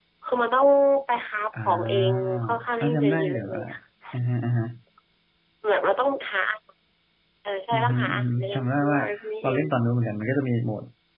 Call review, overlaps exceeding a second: present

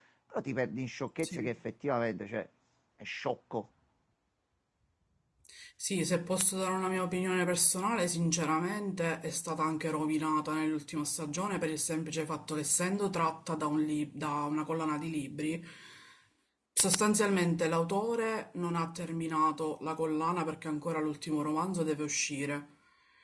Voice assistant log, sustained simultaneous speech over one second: none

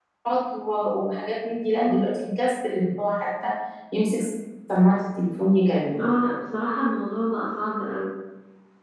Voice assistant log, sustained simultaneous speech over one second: none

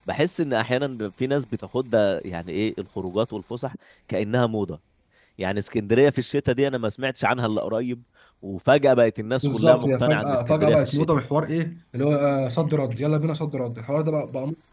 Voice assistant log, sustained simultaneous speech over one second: present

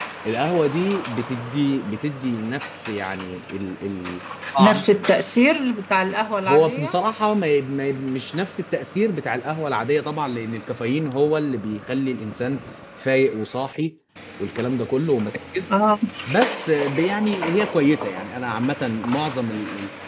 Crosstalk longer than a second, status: none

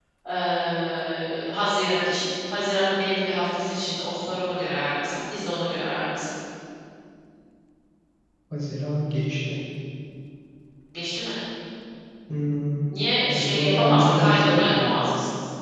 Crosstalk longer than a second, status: present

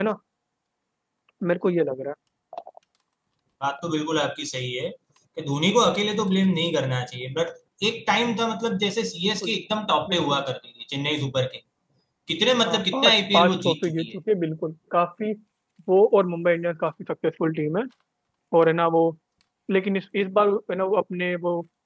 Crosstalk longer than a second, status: present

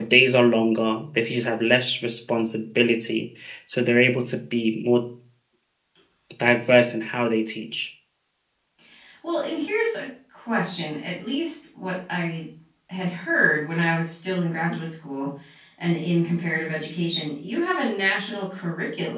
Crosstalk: none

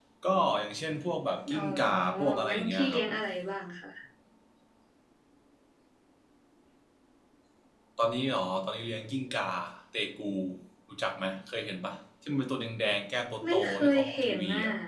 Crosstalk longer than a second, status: present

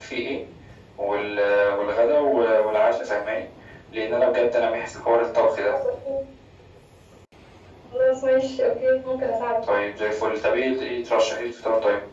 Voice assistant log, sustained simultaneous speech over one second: none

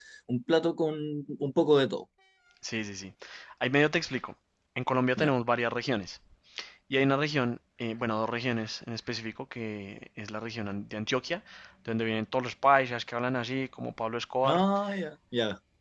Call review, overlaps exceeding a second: none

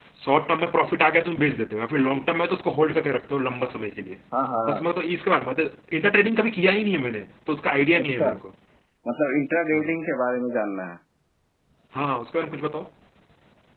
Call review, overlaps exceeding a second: none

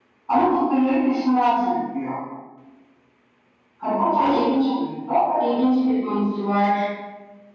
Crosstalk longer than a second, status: none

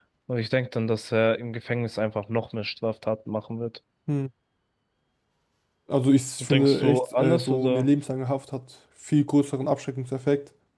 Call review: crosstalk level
present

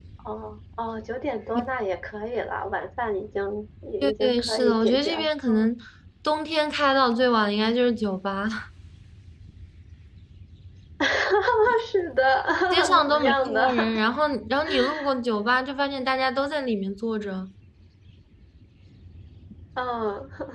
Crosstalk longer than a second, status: present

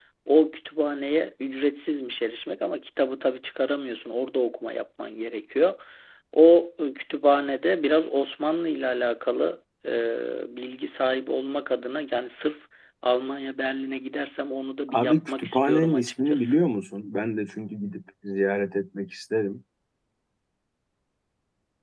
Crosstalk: present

